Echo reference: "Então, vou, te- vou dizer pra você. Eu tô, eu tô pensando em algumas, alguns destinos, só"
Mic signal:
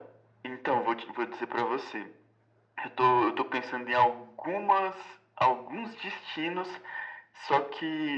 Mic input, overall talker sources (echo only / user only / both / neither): echo only